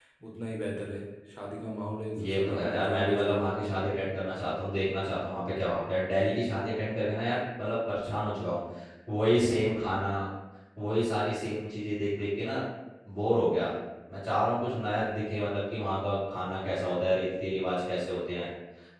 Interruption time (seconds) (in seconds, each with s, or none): 2.2 s